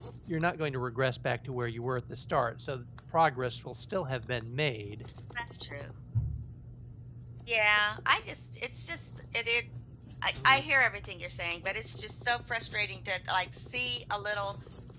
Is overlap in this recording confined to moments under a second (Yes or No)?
Yes